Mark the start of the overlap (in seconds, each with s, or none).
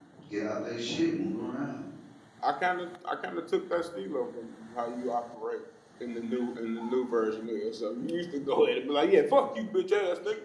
none